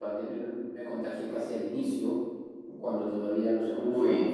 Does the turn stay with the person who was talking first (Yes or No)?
Yes